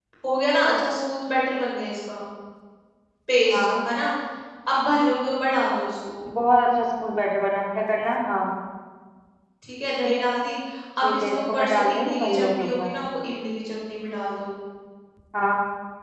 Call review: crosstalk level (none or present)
present